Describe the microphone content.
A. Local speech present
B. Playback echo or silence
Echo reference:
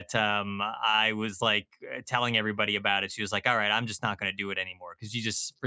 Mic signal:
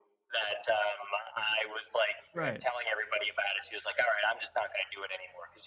A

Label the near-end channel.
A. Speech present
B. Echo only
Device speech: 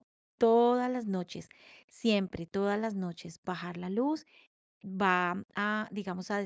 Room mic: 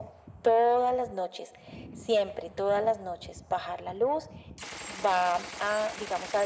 B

